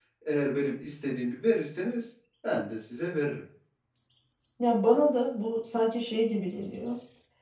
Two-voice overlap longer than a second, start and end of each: none

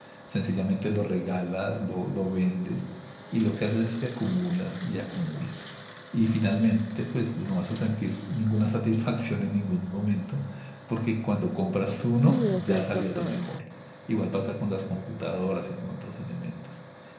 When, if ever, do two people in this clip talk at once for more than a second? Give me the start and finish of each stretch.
12.3-13.5

